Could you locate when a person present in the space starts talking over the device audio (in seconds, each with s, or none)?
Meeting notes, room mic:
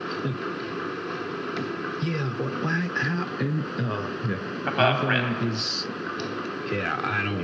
4.7 s